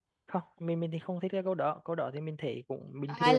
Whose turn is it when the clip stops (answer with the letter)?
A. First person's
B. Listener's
B